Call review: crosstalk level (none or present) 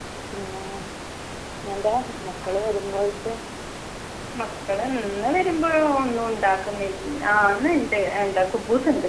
none